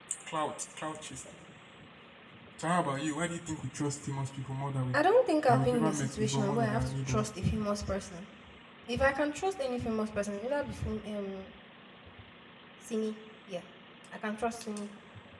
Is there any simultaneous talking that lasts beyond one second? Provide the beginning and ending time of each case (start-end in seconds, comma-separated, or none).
5.5-7.3